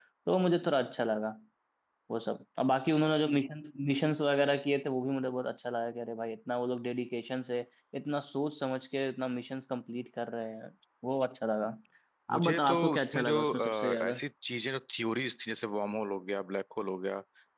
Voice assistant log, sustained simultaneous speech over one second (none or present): present